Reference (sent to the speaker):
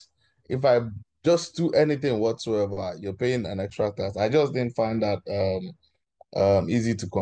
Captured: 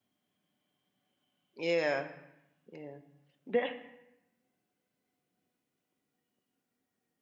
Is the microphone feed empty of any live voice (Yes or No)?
No